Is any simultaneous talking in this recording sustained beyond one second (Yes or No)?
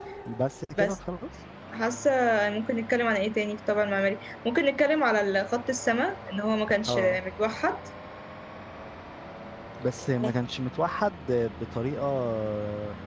No